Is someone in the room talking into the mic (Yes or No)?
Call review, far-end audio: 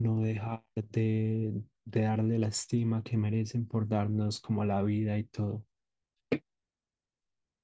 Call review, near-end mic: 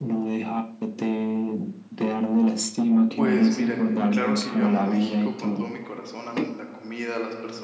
Yes